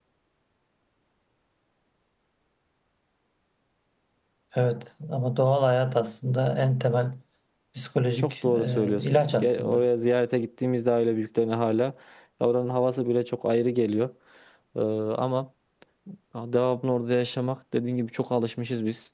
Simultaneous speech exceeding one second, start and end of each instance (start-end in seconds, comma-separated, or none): 8.2-9.8